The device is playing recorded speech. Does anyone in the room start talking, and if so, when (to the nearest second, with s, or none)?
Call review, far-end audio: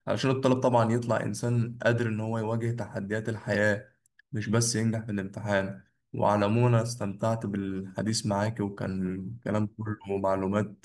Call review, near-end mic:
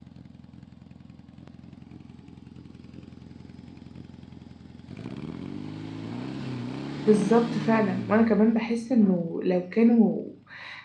7 s